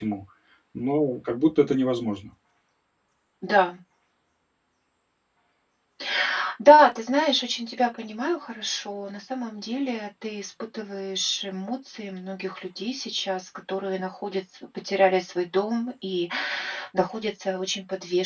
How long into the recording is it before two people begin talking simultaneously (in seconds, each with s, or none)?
none